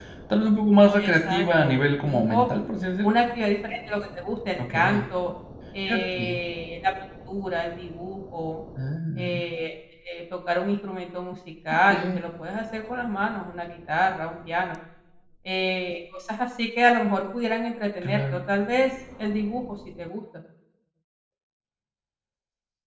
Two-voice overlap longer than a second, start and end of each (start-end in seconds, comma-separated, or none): 1.0-2.5